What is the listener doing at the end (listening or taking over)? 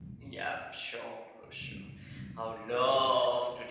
listening